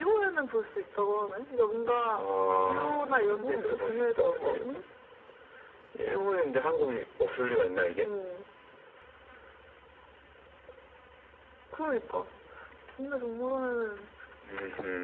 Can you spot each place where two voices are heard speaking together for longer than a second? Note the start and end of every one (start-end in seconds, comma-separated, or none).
2.7-4.8